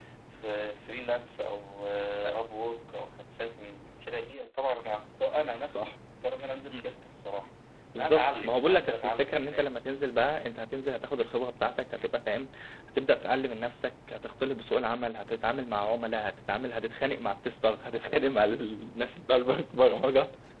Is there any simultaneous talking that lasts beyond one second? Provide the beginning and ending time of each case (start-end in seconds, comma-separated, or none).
8.0-9.8